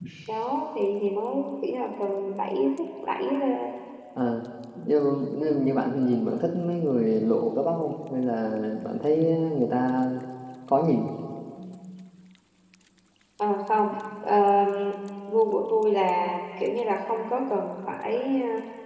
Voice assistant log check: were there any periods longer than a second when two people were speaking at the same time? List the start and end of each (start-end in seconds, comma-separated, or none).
none